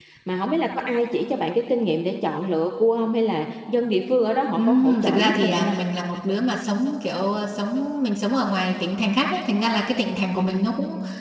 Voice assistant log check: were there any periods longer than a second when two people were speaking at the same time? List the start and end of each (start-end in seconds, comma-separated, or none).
4.5-5.8